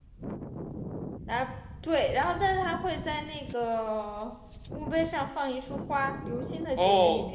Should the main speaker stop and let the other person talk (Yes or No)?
Yes